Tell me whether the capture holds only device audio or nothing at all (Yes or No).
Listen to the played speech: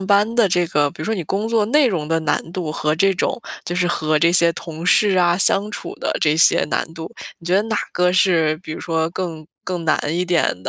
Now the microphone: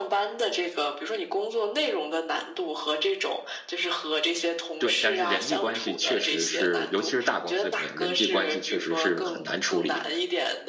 No